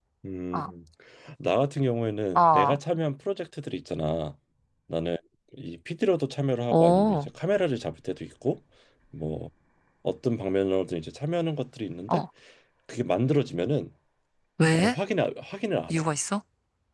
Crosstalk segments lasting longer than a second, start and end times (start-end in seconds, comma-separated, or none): none